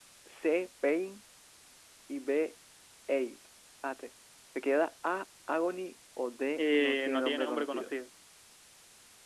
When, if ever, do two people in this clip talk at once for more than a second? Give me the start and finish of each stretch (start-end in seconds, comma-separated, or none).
6.6-7.9